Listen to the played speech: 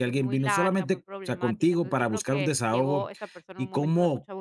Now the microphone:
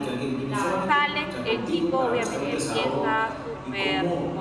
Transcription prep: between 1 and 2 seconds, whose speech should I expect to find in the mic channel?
both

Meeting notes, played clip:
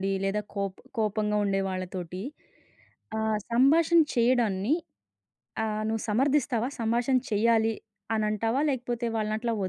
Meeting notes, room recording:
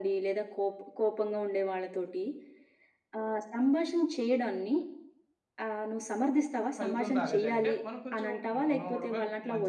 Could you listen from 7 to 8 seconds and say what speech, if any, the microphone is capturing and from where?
both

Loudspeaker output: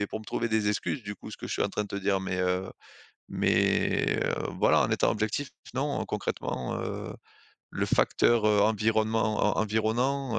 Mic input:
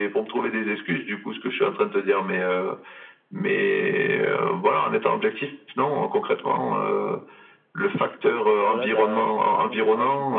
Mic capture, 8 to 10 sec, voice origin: both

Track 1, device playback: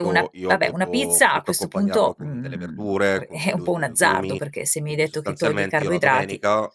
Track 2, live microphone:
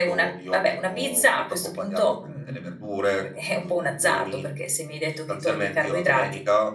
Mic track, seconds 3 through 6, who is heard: echo only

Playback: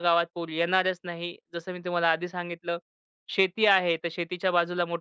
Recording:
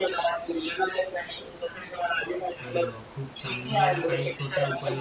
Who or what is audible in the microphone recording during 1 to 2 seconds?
echo only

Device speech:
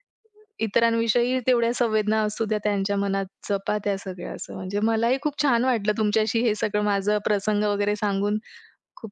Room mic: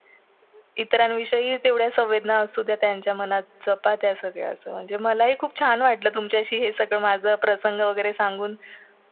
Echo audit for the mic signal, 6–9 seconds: echo only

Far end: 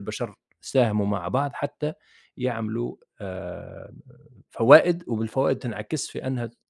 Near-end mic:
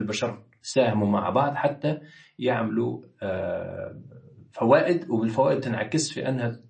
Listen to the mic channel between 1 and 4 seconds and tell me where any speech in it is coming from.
echo only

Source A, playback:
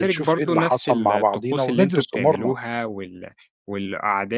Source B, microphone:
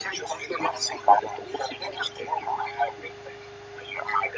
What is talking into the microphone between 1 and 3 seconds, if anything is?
echo only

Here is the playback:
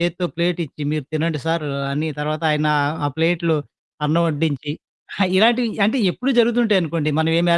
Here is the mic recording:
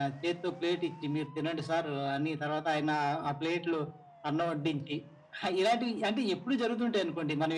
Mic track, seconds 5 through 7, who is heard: echo only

